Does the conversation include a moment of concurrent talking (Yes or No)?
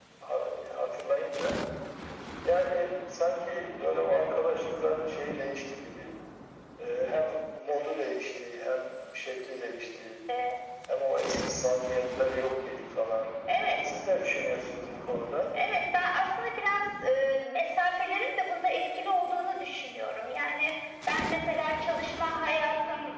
No